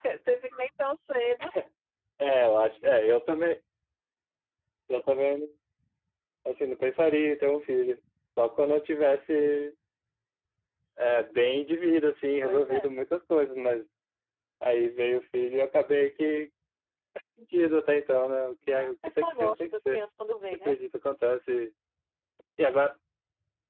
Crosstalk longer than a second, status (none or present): present